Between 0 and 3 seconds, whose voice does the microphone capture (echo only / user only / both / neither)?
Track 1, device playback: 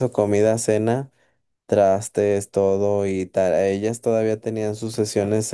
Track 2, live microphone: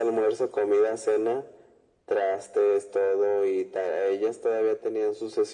echo only